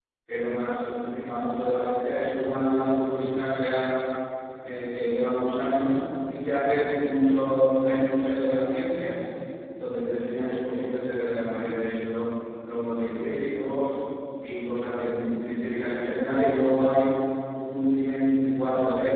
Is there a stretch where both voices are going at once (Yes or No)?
No